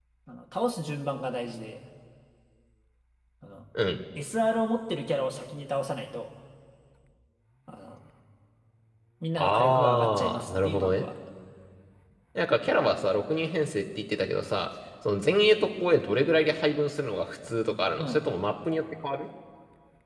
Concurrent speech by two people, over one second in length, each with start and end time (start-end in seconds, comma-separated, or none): 9.4-11.1